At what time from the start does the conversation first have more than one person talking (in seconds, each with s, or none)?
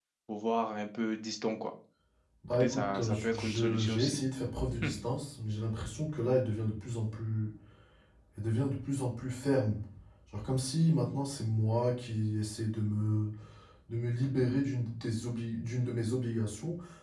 2.5 s